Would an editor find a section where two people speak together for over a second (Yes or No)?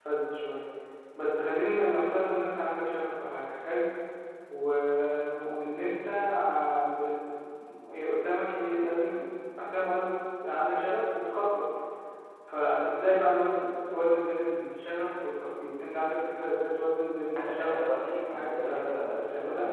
Yes